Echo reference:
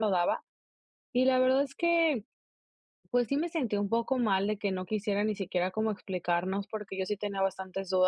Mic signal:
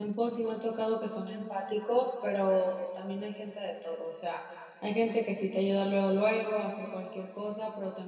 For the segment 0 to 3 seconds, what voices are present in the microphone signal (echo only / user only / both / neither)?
user only